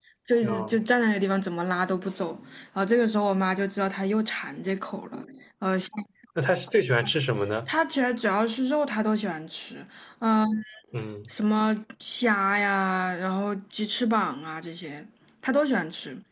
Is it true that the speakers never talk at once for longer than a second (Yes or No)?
Yes